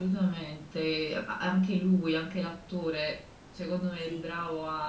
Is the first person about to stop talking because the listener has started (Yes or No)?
No